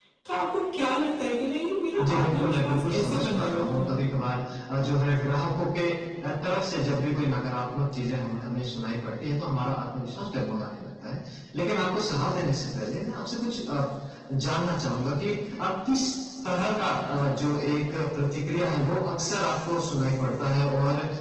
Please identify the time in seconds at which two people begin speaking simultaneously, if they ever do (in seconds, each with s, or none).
2.0 s